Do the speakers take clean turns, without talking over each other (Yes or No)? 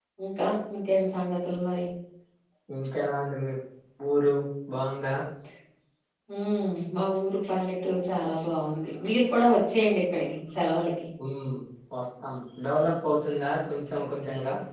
Yes